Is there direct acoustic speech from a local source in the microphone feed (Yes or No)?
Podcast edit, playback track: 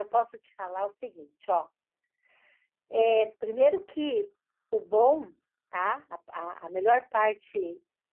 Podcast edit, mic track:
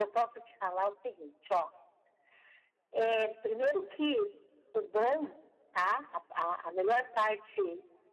No